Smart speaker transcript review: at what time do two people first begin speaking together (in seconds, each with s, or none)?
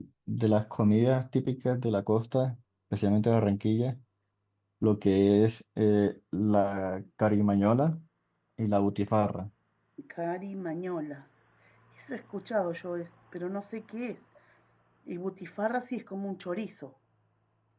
none